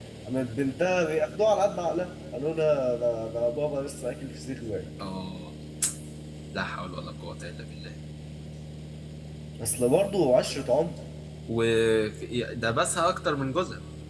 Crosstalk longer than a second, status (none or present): none